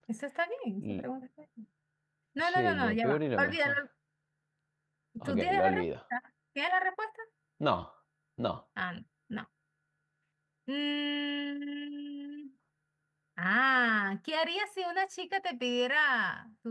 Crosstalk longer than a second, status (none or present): present